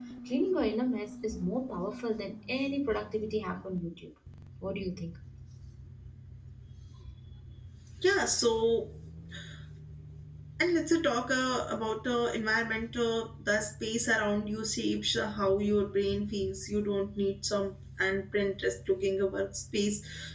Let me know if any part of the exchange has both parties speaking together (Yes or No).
No